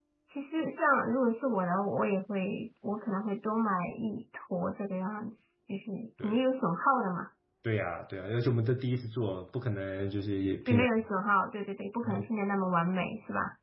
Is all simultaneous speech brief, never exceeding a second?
Yes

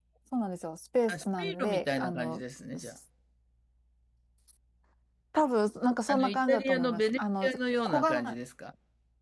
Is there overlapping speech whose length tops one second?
Yes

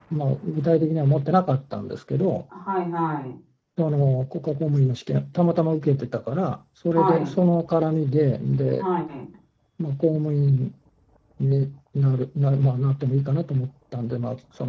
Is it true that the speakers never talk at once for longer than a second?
Yes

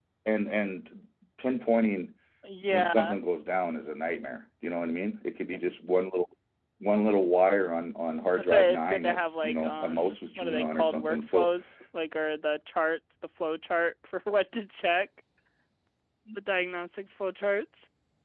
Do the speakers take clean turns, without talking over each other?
No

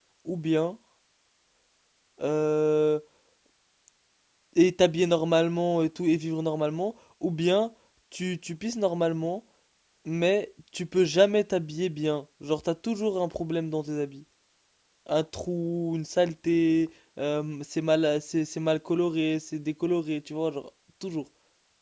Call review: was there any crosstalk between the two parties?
No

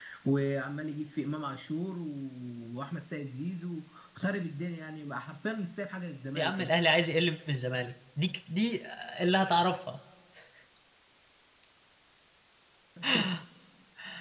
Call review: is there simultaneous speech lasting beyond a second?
No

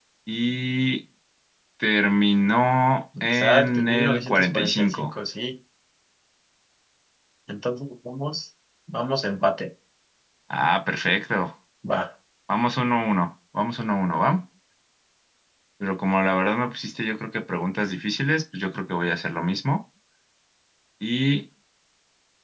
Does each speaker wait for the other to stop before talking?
No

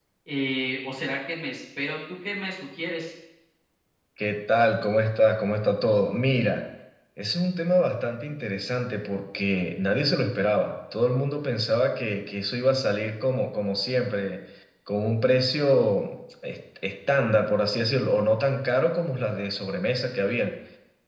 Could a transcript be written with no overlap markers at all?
Yes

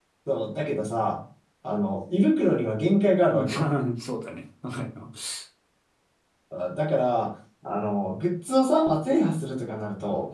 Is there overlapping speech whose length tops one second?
No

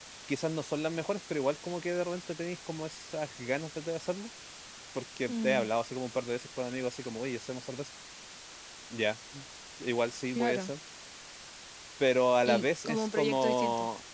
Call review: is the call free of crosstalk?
No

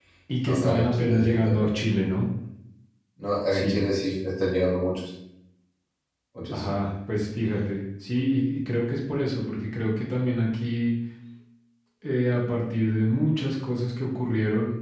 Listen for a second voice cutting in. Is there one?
Yes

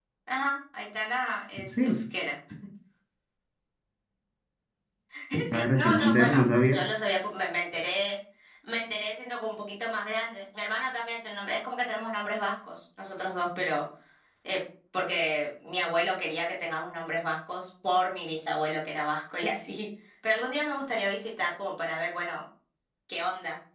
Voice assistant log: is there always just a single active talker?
No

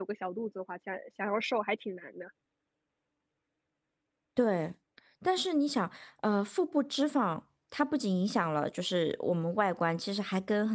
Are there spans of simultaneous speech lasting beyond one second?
No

